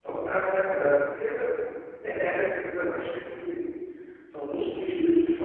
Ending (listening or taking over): listening